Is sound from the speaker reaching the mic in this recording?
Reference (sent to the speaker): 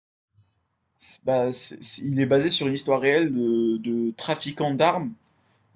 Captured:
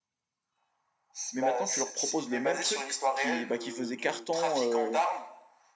Yes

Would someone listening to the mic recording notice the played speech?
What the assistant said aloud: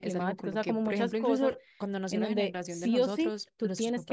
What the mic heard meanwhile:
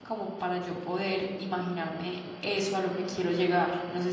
No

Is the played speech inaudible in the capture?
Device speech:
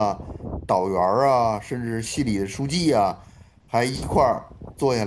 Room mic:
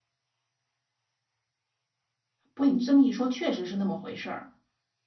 Yes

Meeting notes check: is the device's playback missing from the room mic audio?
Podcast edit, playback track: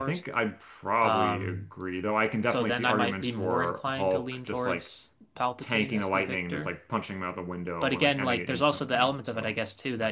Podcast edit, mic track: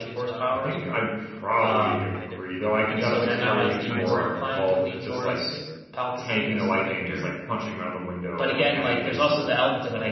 No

